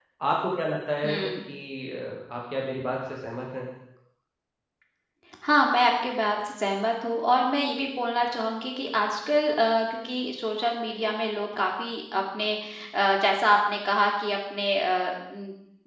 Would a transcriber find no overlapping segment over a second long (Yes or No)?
Yes